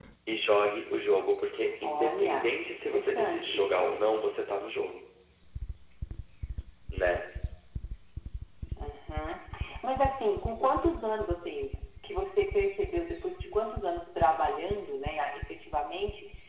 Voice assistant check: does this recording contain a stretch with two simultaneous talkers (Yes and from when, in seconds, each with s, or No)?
Yes, from 1.8 s